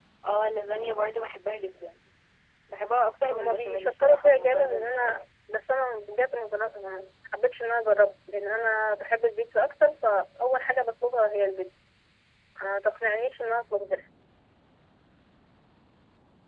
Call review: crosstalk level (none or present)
present